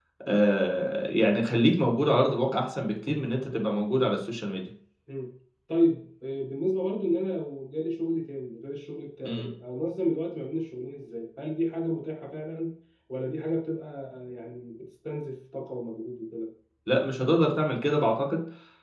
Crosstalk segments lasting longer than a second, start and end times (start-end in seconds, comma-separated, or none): none